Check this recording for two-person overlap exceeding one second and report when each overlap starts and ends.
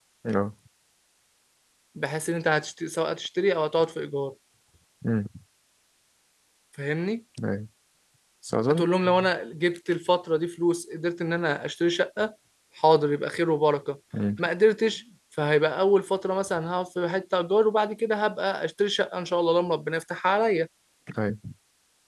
none

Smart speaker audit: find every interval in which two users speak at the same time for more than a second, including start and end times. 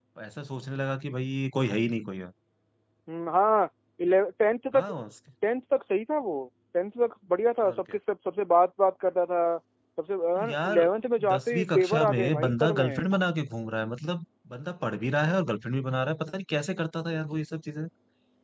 11.3-13.0

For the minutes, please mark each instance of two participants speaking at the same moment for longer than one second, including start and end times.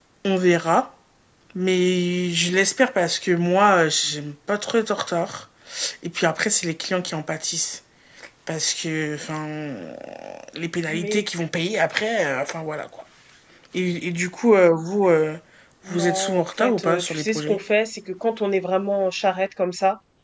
15.9-17.6

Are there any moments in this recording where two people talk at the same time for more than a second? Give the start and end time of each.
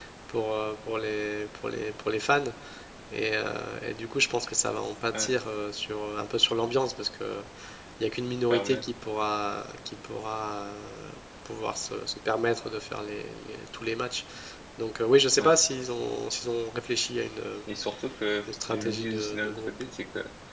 18.5-19.7

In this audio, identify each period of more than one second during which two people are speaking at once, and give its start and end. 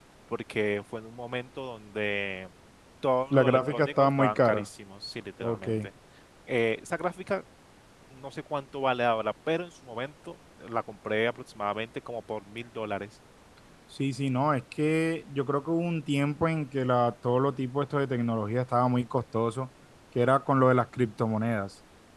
3.3-4.7

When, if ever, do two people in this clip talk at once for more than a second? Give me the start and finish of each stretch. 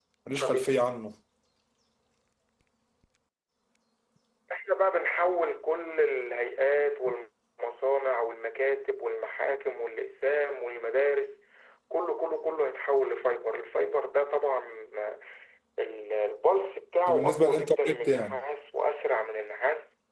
17.1-18.4

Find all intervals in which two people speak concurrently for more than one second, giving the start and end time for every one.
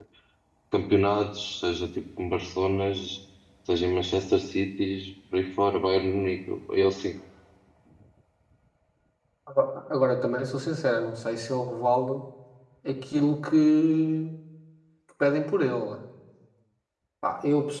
none

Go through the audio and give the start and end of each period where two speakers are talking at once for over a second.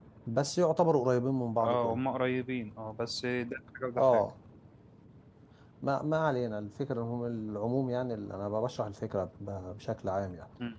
none

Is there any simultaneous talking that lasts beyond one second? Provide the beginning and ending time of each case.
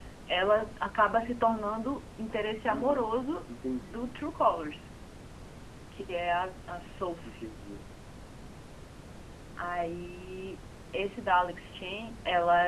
none

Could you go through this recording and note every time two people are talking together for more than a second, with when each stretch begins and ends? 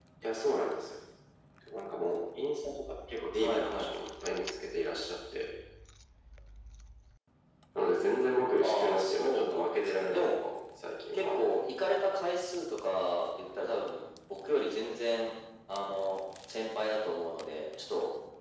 8.6-10.3

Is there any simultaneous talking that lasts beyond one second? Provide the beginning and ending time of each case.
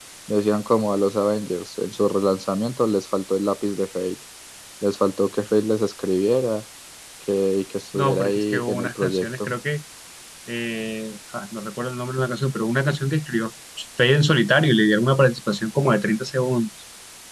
7.9-9.5

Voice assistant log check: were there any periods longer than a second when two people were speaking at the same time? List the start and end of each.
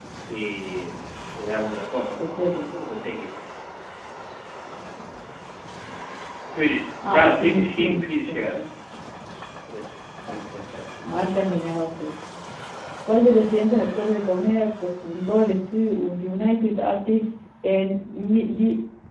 7.1-8.6

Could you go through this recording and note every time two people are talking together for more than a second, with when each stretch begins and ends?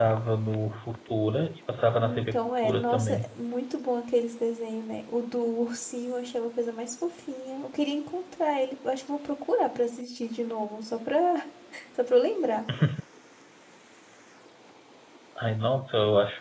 1.9-3.2

